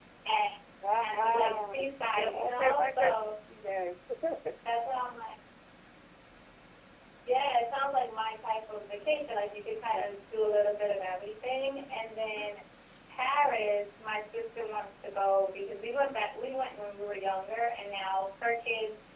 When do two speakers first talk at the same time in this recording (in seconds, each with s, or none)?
1.0 s